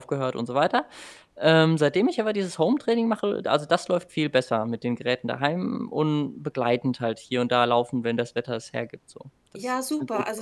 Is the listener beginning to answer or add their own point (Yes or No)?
Yes